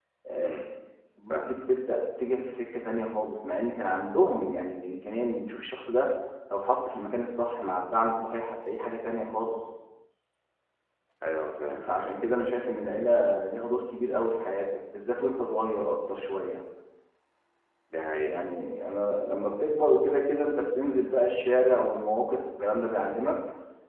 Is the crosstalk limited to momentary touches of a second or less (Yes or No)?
Yes